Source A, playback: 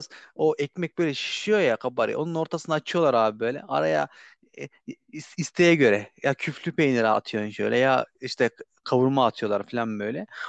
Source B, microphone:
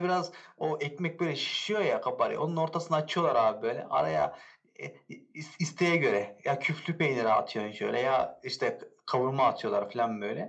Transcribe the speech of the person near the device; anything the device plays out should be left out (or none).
none